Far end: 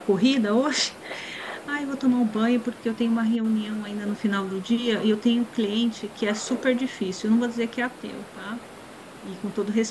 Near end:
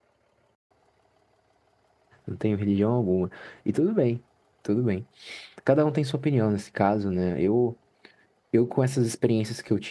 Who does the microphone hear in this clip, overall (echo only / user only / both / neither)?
user only